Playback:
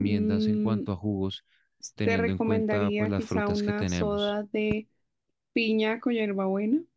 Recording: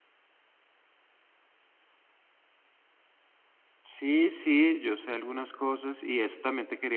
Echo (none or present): none